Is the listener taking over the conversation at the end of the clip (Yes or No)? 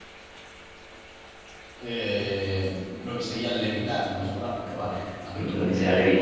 Yes